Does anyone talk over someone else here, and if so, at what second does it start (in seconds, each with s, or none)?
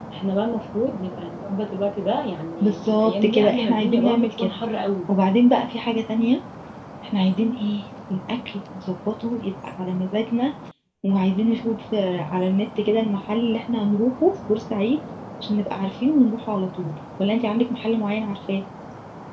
2.6 s